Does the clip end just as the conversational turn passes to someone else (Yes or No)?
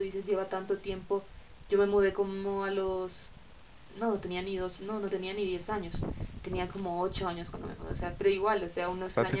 No